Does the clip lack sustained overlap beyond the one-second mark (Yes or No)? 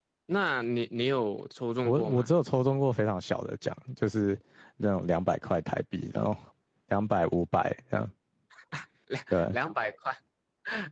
Yes